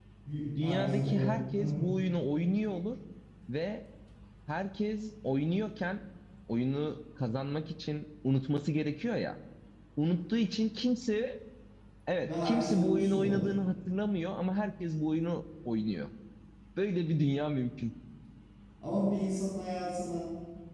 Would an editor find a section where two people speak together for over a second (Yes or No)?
Yes